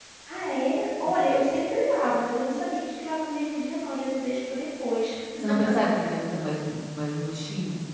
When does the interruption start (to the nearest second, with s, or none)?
none